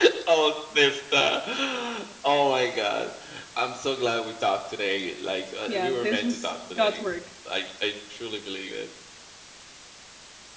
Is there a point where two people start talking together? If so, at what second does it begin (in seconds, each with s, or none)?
5.7 s